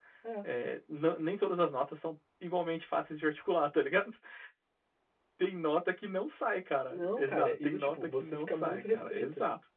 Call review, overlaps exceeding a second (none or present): present